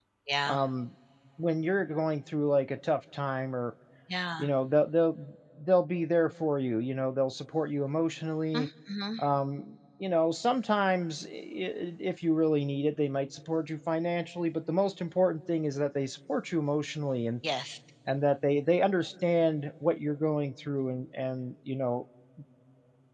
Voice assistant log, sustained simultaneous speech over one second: none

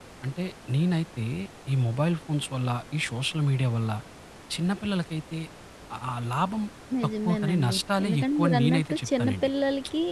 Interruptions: present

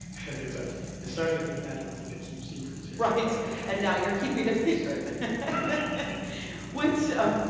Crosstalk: present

